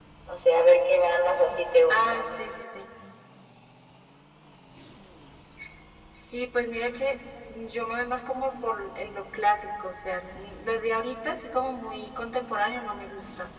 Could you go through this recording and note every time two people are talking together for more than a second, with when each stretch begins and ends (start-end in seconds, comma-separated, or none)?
none